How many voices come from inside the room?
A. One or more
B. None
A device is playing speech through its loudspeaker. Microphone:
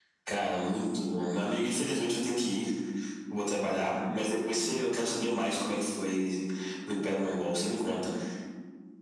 B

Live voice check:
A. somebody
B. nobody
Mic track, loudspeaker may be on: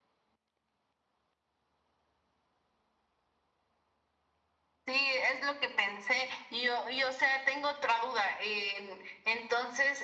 B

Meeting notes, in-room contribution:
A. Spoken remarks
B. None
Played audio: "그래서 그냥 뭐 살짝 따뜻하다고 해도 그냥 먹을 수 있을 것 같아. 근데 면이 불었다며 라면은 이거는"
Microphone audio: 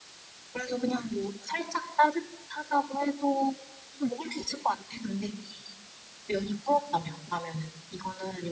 B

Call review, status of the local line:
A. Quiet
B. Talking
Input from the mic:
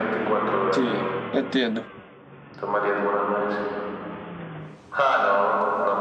B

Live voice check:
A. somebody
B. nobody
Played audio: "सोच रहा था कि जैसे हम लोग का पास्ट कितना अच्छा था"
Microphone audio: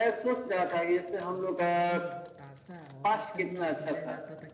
A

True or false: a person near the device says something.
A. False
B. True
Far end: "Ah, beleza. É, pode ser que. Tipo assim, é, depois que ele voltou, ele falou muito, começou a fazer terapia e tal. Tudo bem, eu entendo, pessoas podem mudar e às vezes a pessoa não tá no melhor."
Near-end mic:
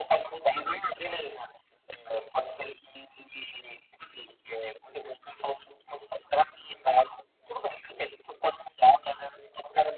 A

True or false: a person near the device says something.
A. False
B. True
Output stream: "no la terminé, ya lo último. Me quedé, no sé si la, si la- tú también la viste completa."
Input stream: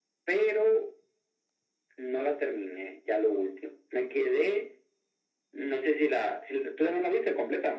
A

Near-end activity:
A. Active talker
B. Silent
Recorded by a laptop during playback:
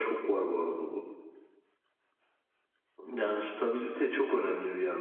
A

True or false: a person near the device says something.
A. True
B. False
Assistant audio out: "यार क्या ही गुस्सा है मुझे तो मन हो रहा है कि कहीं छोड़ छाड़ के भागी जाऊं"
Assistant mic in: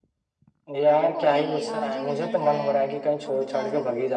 A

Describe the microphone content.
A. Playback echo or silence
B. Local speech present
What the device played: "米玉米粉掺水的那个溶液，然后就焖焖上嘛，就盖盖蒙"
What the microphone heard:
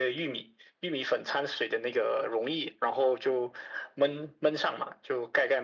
A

